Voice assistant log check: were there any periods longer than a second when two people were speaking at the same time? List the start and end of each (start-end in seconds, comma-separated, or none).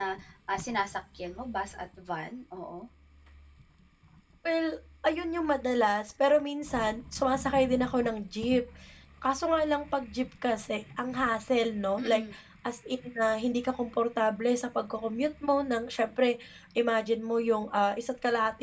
none